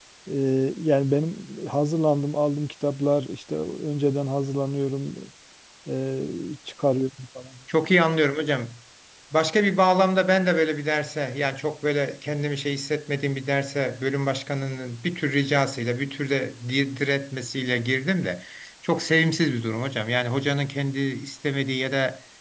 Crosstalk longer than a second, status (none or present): none